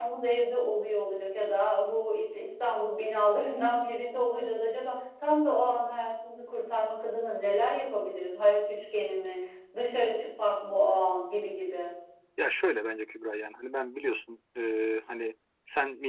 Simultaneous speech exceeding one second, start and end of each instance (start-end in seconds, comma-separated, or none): none